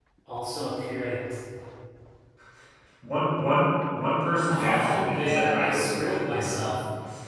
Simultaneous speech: Yes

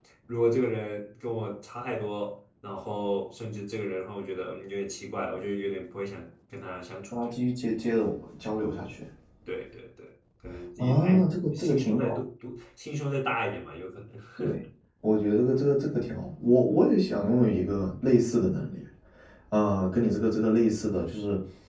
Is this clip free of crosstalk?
No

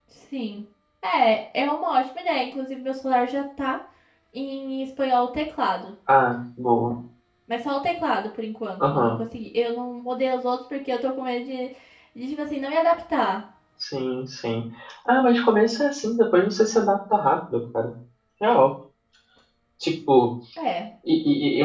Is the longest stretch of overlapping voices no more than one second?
Yes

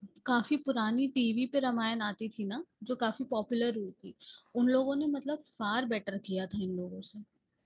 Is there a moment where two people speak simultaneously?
No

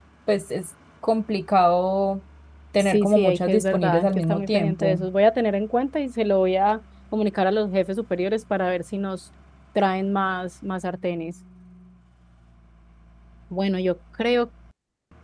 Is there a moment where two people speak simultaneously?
Yes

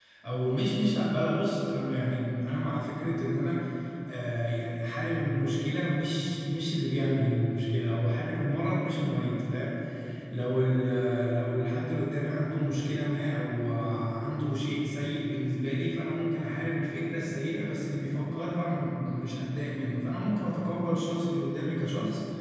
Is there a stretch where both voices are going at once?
No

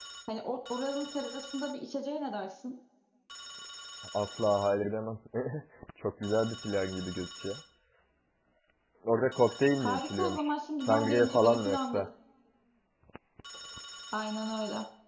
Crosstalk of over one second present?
Yes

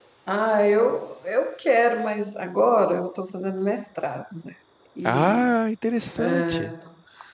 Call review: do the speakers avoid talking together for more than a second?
Yes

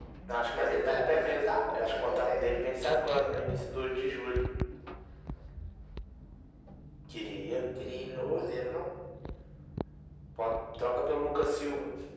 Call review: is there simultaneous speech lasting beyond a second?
Yes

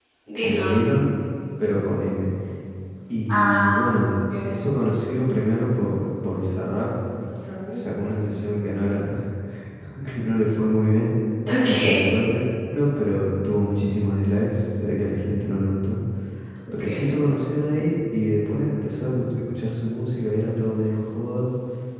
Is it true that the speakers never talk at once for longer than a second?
Yes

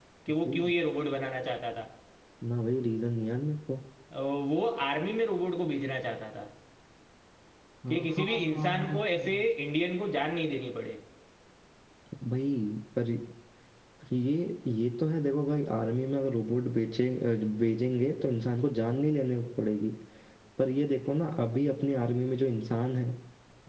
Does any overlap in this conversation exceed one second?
Yes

